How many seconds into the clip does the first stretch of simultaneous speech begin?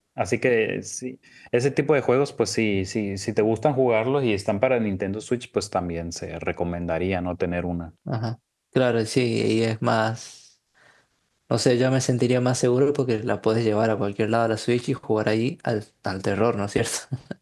none

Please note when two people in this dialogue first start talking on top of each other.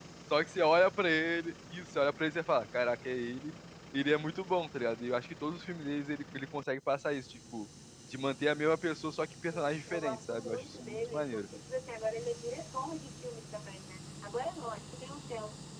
9.5 s

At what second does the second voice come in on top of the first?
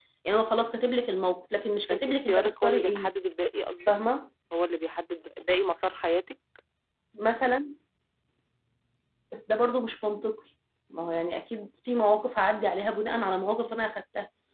1.9 s

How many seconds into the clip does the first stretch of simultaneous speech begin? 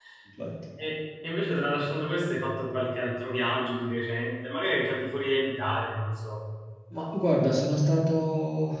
none

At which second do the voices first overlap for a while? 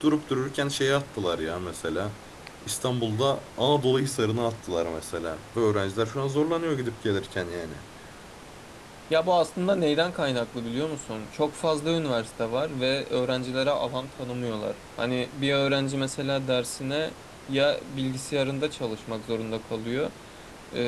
none

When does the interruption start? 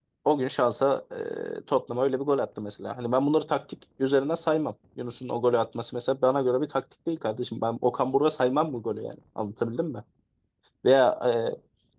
none

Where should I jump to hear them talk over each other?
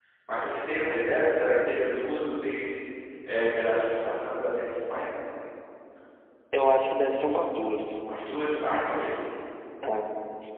none

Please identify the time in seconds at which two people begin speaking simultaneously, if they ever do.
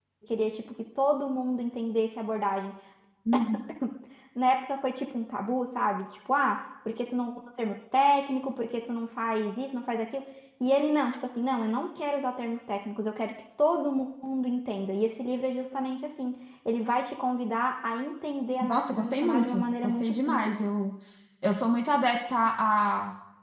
18.6 s

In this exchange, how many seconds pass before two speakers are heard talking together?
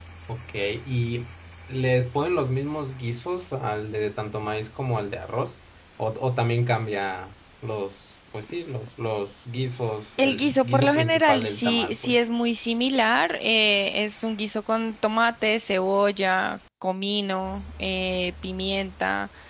10.2 s

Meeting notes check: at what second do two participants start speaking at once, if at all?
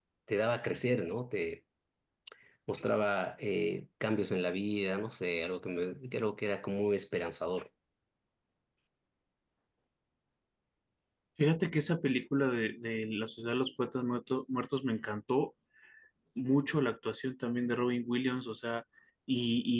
none

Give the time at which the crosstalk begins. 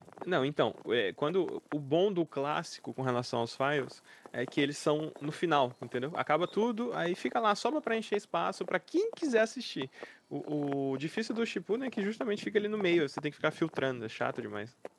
none

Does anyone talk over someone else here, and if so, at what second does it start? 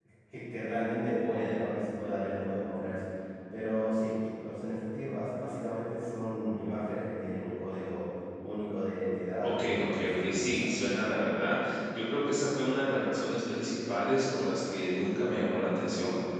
9.4 s

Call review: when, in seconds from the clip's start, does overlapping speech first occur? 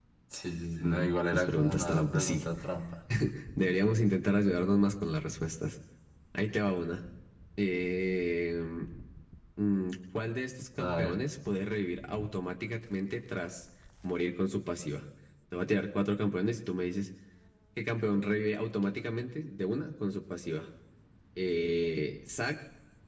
0.8 s

